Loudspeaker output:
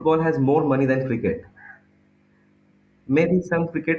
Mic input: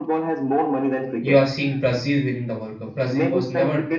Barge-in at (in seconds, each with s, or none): 1.3 s